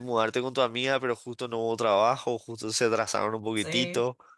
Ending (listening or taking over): taking over